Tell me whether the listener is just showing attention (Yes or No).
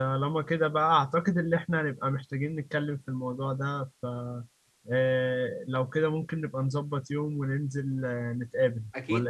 No